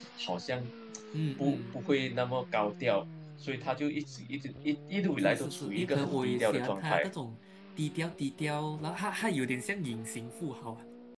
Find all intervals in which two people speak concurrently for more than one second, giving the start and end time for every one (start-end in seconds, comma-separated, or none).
5.2-7.1